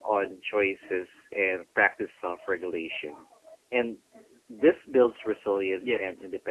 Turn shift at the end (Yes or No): No